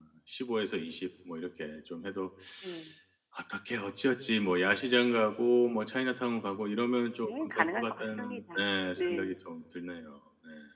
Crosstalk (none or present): present